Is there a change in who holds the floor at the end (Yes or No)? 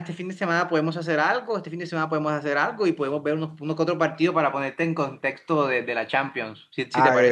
Yes